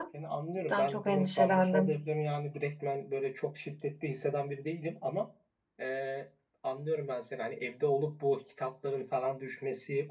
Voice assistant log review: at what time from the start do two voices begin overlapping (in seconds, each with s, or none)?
0.7 s